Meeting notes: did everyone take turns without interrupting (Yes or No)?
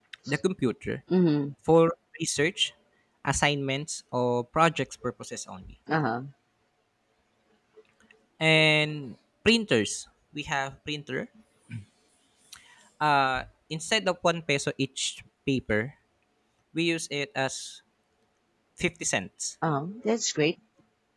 Yes